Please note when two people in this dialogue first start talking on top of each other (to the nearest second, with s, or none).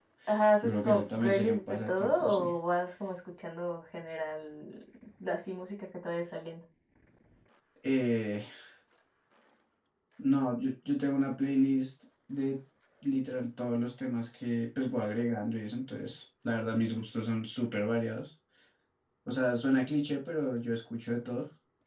1 s